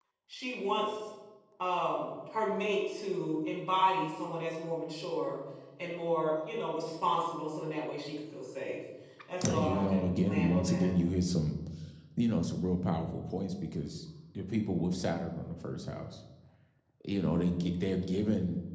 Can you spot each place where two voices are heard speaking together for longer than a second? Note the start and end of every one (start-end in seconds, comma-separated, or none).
9.6-10.9